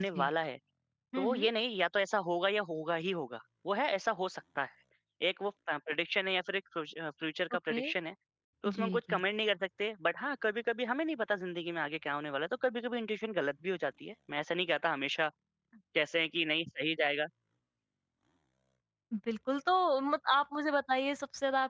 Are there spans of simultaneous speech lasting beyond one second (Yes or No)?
No